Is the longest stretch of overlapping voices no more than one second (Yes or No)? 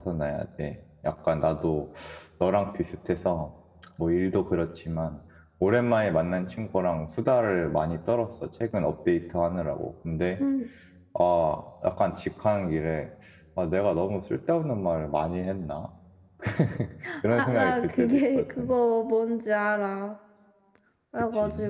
No